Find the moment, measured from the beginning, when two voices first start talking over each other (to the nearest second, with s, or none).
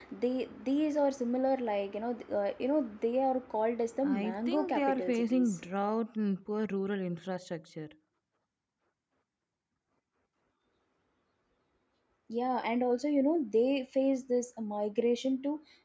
4 s